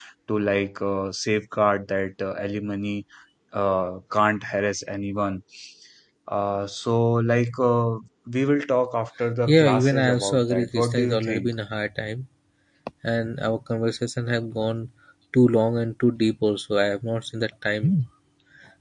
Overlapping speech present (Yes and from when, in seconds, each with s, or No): Yes, from 9.5 s